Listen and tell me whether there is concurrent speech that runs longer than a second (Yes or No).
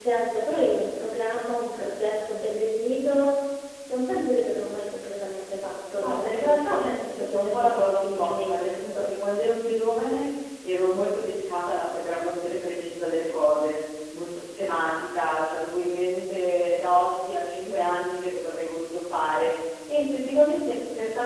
Yes